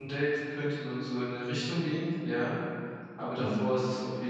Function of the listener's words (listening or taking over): listening